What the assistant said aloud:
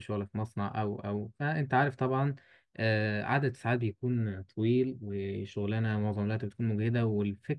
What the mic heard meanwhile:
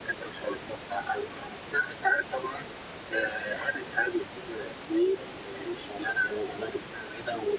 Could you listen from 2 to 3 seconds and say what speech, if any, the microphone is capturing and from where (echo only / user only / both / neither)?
echo only